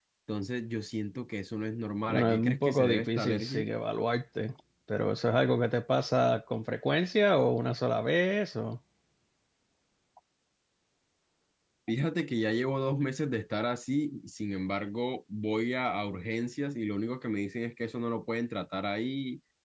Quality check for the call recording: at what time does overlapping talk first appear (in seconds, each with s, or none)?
2.1 s